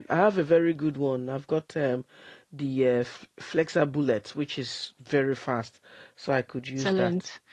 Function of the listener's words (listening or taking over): taking over